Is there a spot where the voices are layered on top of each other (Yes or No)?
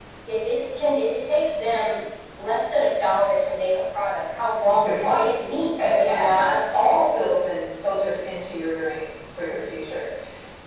Yes